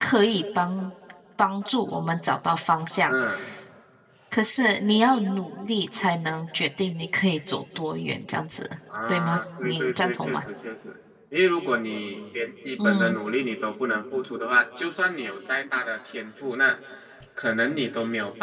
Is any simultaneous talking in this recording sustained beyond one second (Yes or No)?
Yes